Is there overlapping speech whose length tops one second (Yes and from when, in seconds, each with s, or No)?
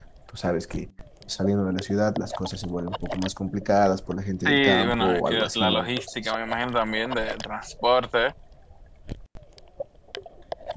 Yes, from 4.4 s